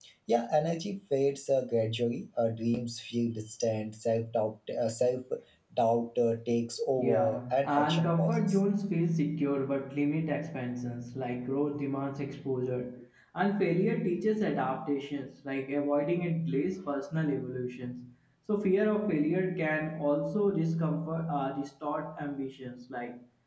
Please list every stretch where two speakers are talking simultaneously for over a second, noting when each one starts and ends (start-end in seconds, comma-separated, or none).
7.0-8.6